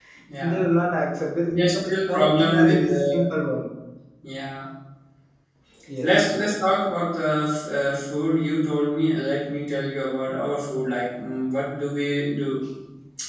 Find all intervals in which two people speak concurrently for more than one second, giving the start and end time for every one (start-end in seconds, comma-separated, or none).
1.4-3.2